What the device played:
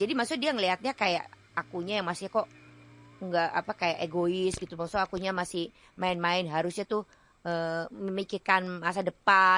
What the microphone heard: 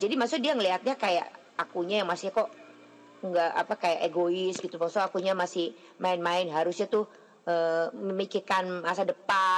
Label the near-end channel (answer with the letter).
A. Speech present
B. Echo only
B